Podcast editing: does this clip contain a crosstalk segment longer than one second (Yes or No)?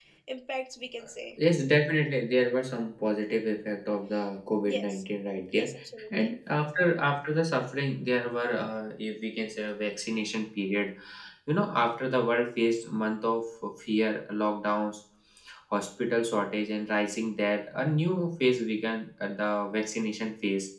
No